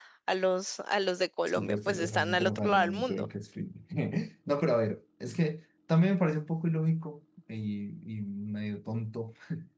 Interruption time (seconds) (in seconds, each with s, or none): 1.5 s